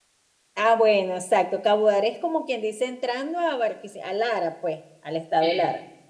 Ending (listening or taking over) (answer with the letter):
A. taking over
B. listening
B